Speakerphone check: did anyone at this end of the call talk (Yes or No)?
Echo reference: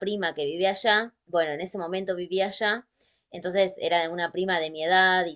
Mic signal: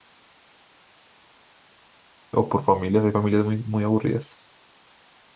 Yes